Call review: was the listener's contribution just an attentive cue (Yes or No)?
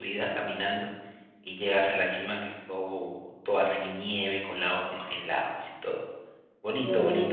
No